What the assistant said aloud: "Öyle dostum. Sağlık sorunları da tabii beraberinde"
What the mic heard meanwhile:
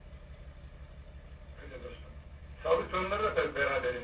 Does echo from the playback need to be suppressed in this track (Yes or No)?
Yes